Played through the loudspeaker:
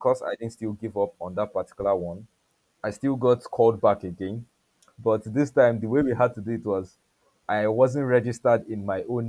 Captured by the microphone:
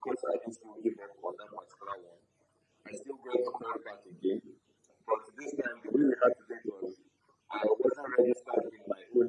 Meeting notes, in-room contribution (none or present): none